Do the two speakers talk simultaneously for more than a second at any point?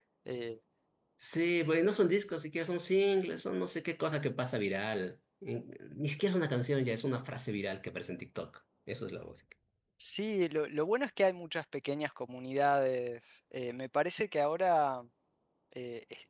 No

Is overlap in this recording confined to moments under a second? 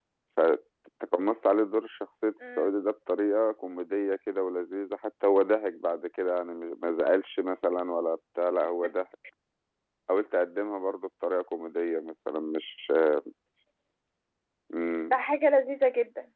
Yes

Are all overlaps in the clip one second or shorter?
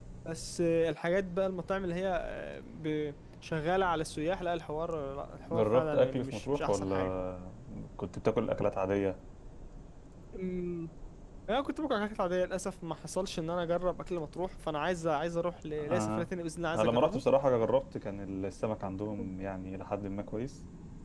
No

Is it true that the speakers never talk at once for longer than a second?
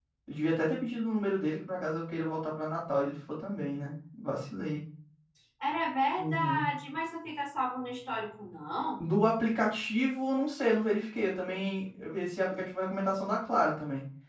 Yes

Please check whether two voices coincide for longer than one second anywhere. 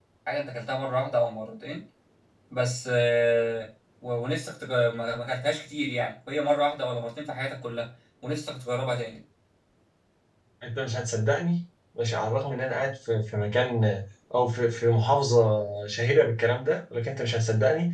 No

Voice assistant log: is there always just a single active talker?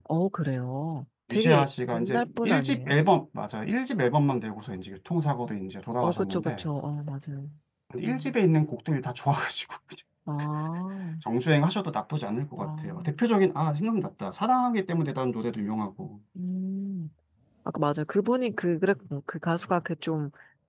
No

